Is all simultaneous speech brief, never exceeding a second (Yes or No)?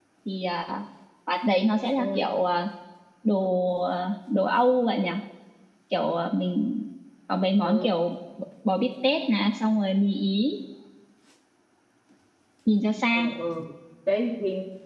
Yes